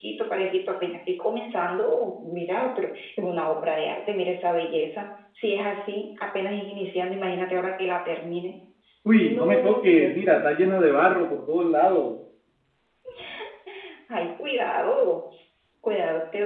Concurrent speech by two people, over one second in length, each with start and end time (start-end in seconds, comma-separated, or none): 9.1-10.5